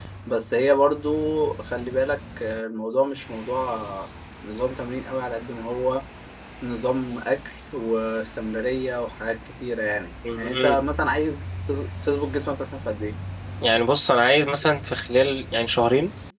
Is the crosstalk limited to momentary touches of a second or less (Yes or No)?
Yes